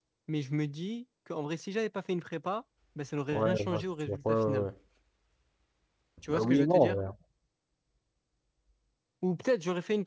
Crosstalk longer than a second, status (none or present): present